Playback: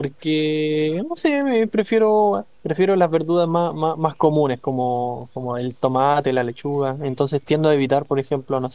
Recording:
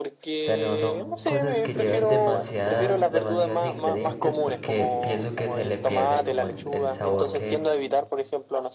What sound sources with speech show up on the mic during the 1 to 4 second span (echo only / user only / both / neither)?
both